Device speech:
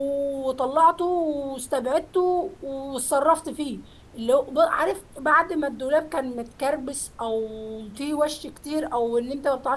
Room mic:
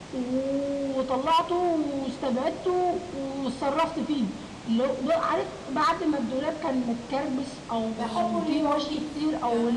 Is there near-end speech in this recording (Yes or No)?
Yes